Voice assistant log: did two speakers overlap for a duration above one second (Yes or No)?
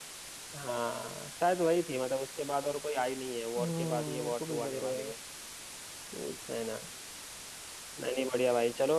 Yes